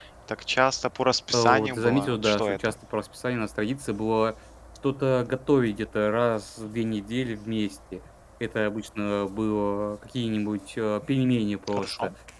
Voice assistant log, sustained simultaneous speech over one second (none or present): present